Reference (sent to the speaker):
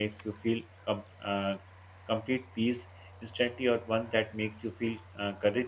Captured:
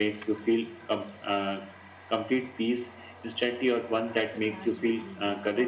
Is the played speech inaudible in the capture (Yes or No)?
No